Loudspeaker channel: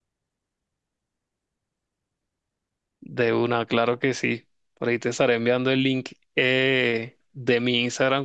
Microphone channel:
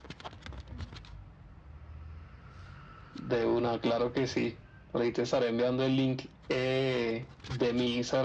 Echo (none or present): present